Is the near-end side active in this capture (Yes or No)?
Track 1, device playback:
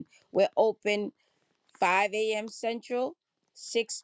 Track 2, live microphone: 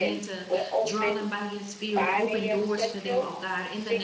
Yes